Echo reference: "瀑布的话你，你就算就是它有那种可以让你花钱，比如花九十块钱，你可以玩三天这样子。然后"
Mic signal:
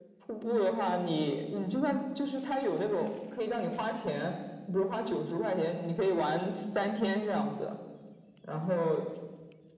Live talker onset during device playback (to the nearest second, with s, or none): none